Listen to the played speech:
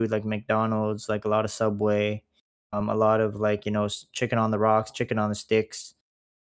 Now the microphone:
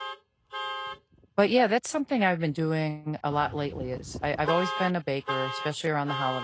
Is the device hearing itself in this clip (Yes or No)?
No